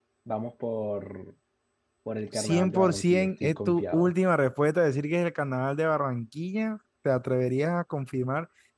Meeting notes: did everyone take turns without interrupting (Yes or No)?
No